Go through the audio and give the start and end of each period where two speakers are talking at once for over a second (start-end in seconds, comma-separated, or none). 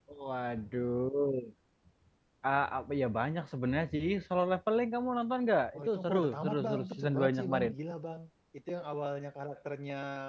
5.7-7.7